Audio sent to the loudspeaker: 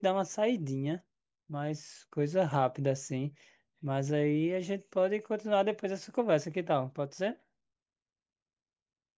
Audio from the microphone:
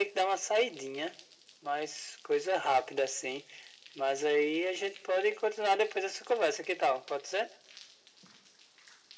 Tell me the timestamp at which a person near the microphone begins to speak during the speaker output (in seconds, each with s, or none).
none